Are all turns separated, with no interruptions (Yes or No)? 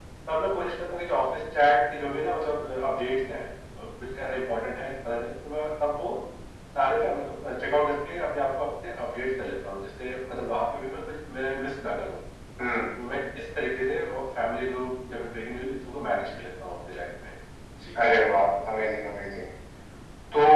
Yes